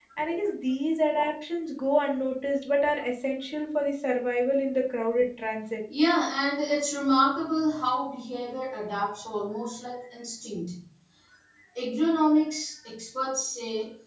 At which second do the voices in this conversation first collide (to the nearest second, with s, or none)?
none